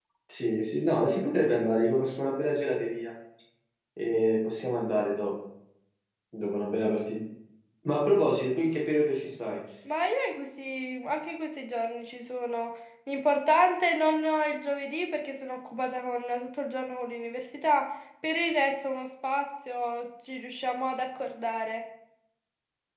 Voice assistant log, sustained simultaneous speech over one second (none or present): none